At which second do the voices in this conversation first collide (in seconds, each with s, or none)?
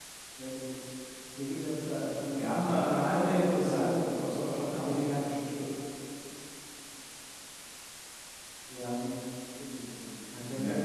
2.4 s